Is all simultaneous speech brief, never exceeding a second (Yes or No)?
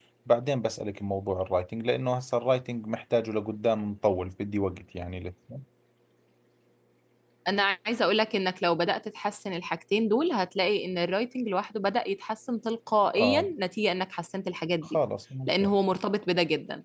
Yes